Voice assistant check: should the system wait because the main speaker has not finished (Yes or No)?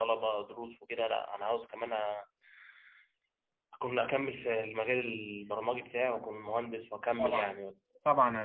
No